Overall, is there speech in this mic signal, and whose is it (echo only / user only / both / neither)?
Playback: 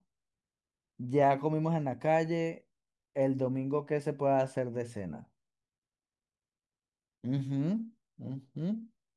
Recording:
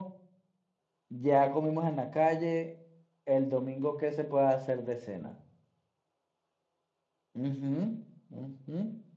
echo only